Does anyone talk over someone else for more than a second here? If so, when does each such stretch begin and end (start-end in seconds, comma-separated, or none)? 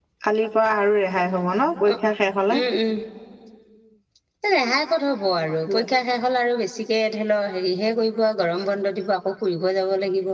none